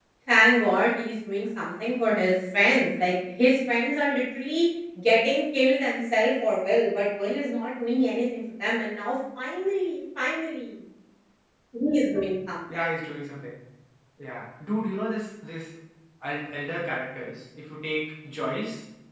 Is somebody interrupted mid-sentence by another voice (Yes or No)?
No